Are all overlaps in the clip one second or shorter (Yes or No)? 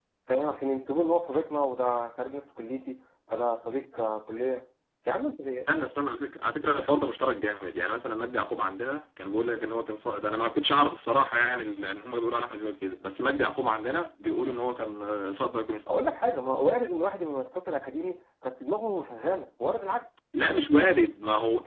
Yes